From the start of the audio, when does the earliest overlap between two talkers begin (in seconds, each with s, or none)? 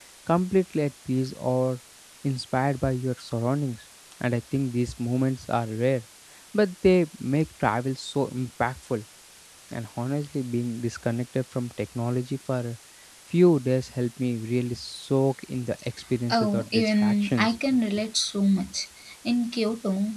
16.3 s